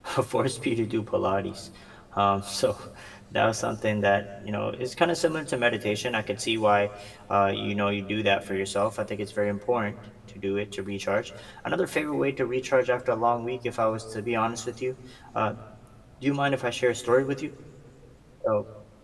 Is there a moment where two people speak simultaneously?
No

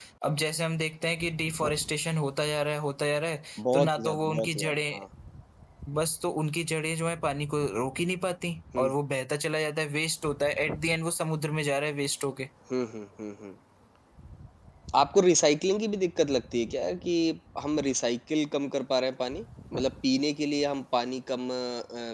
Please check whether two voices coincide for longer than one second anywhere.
Yes, from 3.6 s

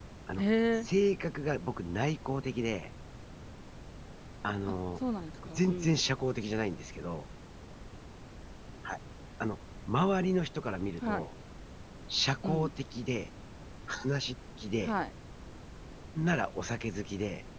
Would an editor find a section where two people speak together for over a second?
No

